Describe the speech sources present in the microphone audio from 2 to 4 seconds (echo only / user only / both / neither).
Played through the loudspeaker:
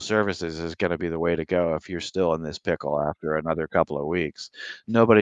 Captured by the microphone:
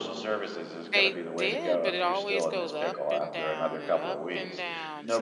both